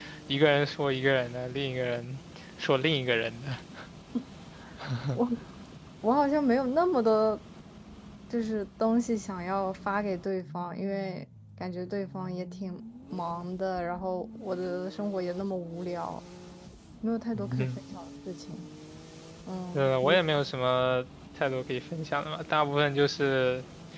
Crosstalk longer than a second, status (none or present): none